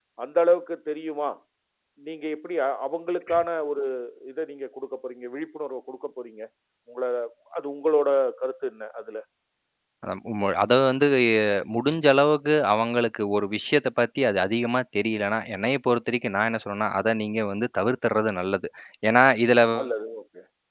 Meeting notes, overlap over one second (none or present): none